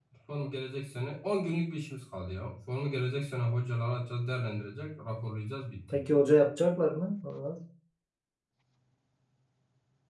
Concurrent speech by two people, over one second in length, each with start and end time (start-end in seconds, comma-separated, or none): none